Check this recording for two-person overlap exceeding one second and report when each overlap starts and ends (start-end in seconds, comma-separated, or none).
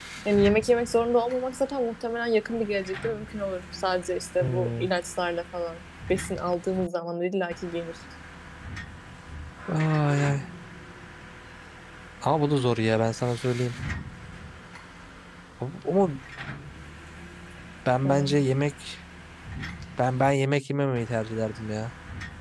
none